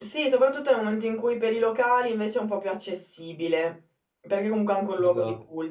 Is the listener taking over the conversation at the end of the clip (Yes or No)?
No